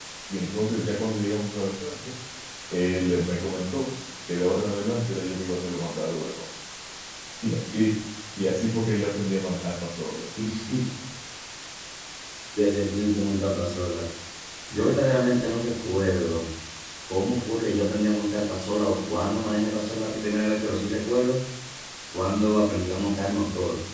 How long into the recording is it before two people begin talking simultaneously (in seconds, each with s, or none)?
none